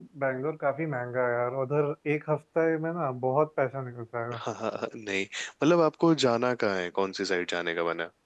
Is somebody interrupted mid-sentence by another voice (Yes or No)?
No